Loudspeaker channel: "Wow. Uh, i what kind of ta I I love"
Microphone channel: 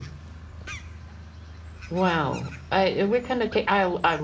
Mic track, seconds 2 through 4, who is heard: echo only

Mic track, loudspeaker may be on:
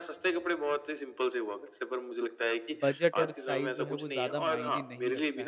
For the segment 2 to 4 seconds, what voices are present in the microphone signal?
both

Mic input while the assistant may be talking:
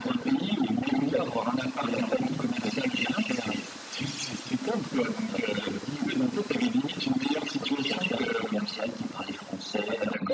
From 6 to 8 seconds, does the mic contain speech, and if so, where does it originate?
echo only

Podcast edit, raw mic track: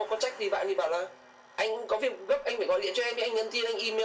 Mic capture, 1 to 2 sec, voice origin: echo only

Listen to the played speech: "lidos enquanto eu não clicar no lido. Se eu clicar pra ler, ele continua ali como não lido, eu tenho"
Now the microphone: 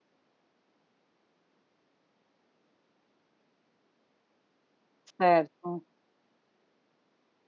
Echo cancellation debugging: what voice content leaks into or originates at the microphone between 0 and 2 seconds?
neither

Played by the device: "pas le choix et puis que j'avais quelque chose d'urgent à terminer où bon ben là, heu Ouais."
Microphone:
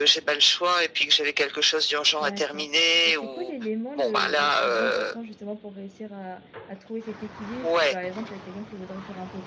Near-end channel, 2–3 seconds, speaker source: both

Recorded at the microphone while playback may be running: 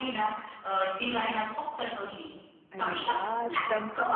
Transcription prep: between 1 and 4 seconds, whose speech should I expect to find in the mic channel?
both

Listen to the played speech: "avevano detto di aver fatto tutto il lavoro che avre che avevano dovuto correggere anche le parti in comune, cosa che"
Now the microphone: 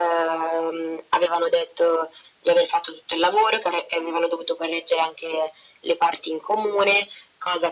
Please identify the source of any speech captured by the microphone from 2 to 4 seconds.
echo only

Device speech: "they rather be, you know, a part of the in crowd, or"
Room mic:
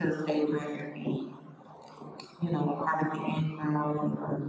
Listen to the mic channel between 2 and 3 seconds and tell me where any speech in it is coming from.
echo only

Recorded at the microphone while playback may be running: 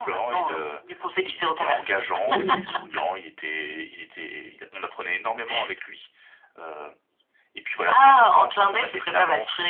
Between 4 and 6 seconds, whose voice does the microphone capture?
echo only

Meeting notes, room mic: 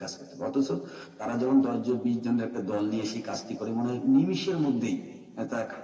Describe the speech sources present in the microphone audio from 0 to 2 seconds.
echo only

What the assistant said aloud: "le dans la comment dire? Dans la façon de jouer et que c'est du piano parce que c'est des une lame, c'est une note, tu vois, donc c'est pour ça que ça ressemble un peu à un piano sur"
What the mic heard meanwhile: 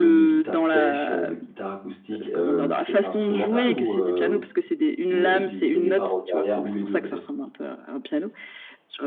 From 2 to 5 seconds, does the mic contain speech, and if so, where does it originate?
both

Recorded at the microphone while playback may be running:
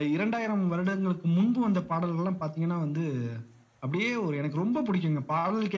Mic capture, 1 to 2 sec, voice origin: echo only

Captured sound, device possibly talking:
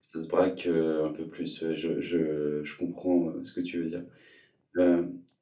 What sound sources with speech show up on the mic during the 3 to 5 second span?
user only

